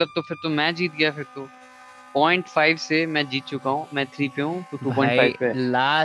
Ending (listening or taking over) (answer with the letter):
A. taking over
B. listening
A